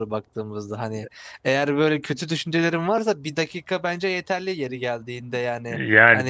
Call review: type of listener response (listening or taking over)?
taking over